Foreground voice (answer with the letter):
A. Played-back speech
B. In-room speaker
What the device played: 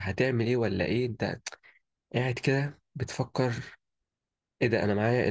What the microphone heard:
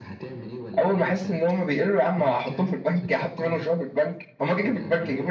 B